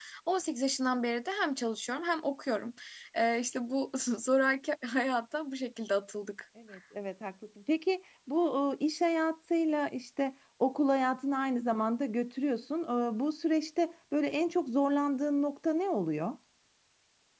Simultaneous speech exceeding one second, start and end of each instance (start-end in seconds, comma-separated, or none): none